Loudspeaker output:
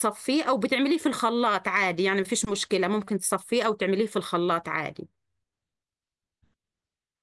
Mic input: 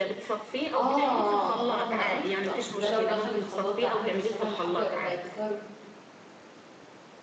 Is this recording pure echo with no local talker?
No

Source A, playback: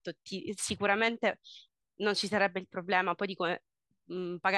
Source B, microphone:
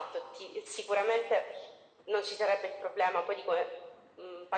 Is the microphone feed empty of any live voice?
Yes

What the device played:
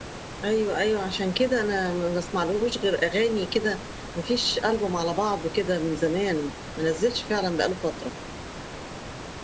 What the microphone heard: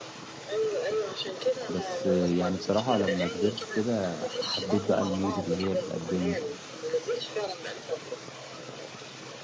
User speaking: Yes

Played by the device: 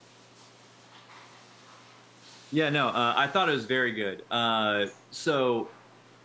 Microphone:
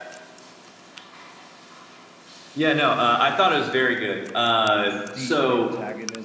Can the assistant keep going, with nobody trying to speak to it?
No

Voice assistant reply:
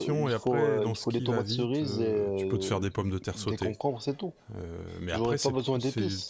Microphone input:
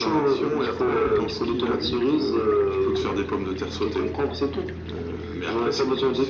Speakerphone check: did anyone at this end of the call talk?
No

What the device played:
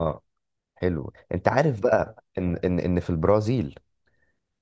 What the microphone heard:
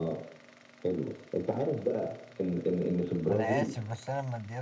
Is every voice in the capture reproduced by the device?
No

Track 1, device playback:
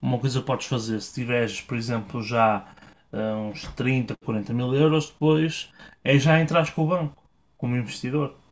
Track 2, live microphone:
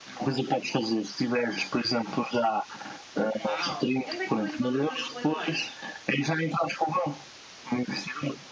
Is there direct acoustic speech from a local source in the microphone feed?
Yes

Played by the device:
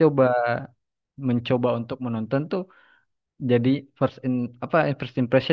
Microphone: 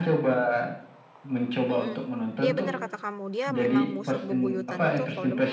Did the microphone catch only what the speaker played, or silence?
No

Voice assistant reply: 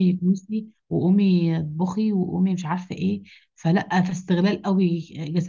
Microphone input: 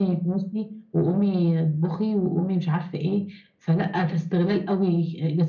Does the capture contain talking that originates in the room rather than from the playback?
No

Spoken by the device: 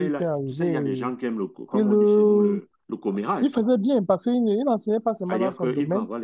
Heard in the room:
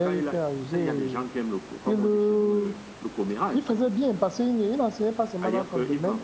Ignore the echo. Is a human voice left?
No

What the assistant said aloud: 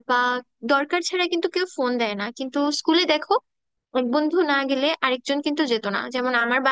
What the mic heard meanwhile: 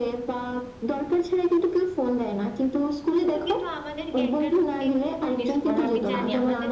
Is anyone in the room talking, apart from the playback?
Yes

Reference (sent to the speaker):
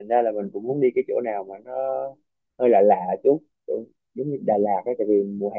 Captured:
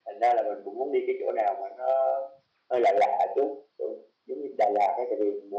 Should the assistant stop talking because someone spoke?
No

